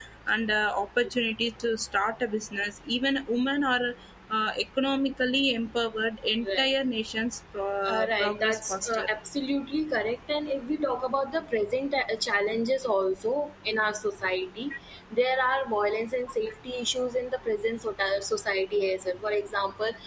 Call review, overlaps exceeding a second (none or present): present